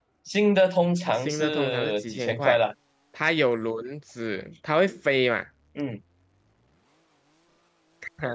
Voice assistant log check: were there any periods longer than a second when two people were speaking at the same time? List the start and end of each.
1.2-2.6

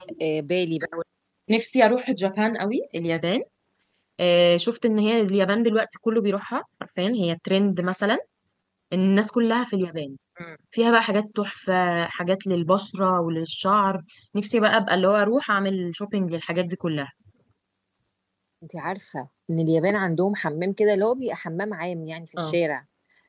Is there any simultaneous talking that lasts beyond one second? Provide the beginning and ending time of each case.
none

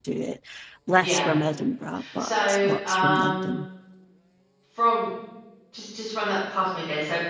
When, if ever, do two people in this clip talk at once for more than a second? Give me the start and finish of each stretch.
2.2-3.5

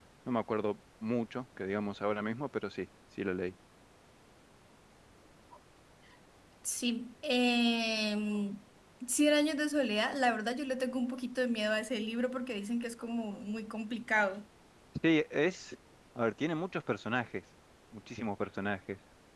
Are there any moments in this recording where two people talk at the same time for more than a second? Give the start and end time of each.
none

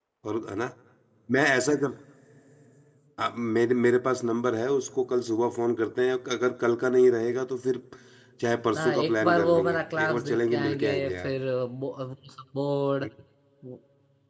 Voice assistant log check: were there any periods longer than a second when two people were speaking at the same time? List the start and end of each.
8.8-11.3

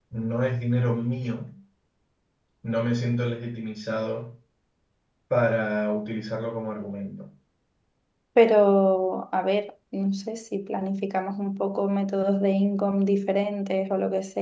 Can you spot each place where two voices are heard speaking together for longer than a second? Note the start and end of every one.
none

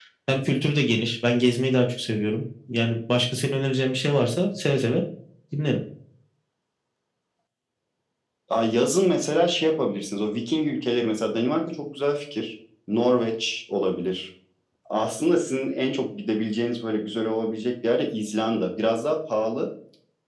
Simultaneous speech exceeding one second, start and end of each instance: none

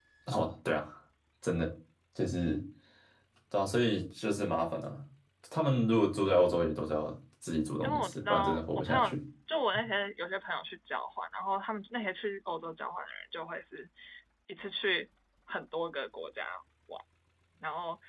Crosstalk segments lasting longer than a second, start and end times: 7.8-9.2

